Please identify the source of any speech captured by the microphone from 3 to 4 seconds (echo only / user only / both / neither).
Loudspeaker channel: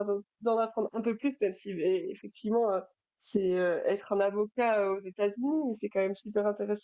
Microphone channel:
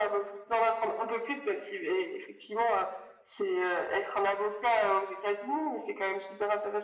echo only